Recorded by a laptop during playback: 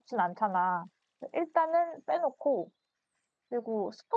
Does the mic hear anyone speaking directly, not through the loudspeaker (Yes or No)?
Yes